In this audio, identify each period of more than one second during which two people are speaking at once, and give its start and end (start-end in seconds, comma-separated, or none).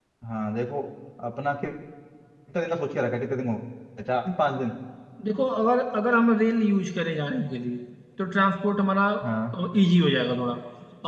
none